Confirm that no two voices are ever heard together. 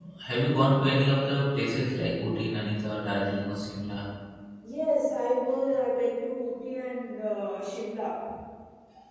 Yes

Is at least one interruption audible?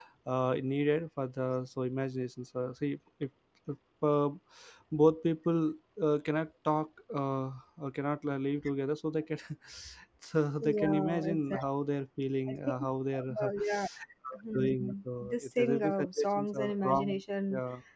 Yes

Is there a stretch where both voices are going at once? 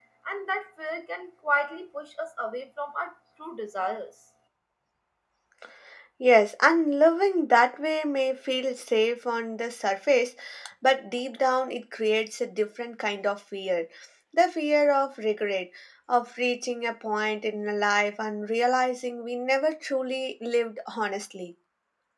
No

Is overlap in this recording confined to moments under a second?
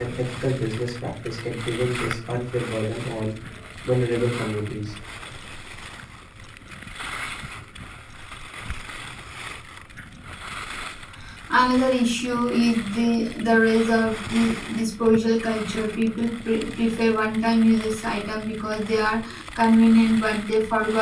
Yes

